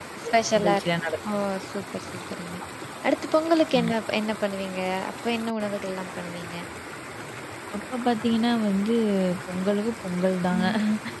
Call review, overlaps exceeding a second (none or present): none